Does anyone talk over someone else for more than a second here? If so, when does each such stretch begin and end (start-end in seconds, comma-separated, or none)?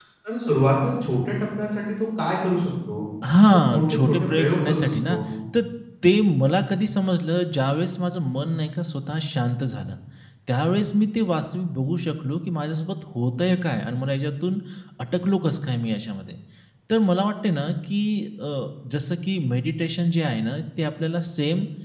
3.5-5.2